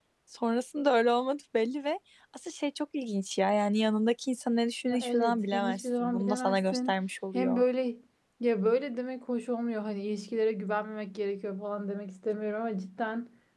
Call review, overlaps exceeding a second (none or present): present